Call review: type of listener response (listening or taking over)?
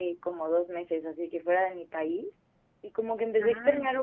listening